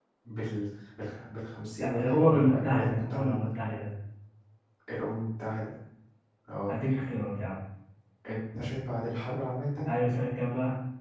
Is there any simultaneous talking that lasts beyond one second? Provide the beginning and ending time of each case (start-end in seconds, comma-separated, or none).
1.8-3.5